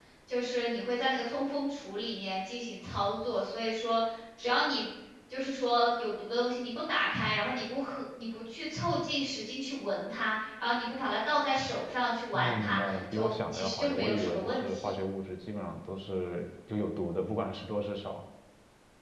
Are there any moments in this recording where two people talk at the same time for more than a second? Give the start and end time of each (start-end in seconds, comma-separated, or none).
12.3-15.0